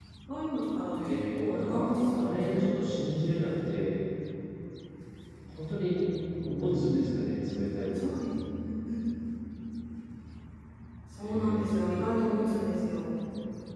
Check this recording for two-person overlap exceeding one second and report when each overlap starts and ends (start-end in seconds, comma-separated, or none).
1.0-2.8, 11.2-12.7